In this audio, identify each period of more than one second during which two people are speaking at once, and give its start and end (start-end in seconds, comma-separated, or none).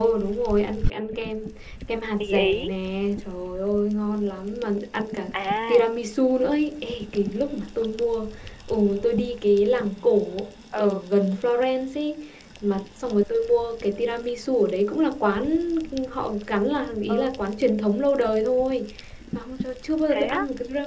none